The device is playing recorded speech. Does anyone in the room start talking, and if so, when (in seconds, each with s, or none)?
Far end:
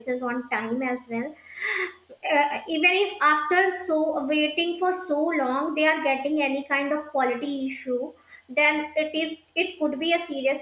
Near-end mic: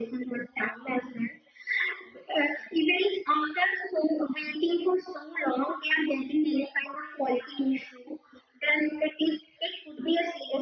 none